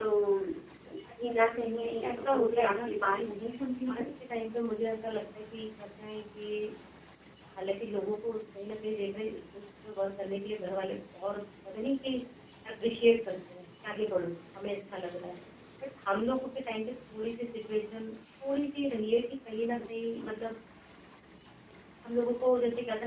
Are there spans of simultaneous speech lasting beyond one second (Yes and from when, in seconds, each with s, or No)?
Yes, from 1.8 s